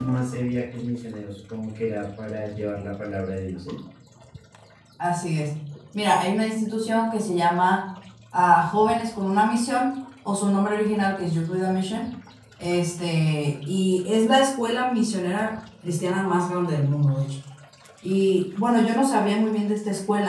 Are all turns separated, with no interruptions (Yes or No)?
Yes